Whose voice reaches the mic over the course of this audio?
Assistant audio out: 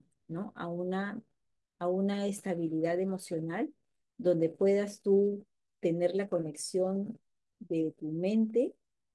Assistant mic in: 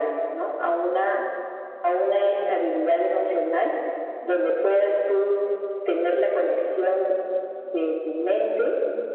echo only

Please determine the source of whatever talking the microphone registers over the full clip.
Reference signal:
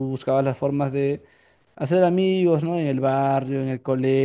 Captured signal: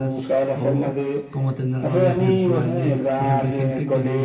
both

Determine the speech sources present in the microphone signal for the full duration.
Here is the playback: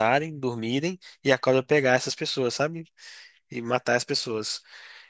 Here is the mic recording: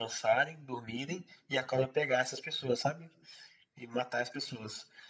echo only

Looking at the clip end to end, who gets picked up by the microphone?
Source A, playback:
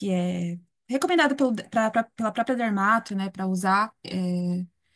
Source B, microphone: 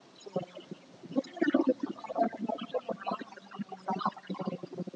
echo only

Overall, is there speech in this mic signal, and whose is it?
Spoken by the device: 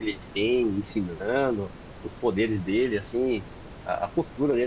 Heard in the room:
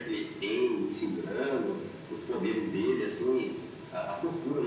echo only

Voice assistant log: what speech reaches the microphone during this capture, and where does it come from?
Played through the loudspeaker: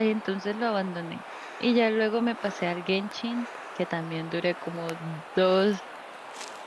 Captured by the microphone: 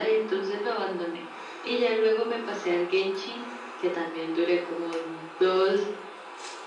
echo only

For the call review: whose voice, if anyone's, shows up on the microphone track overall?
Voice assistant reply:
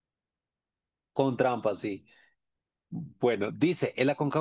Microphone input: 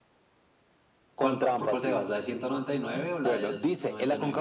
both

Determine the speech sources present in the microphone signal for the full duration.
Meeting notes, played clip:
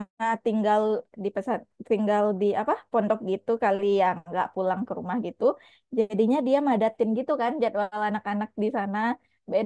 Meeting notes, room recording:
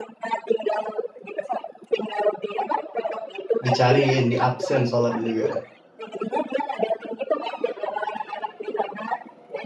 both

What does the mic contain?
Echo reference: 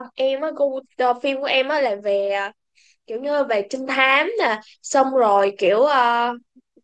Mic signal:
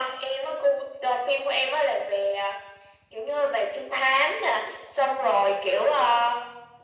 echo only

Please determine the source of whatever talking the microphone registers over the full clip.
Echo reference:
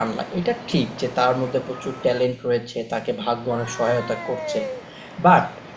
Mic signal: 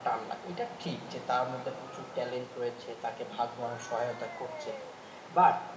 echo only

